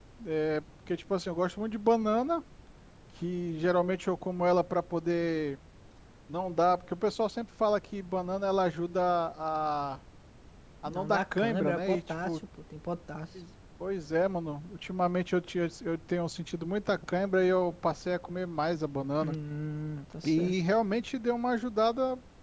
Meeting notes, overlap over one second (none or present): present